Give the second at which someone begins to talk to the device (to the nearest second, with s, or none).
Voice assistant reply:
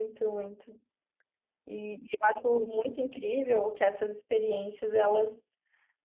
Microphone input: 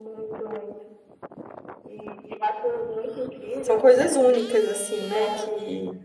4 s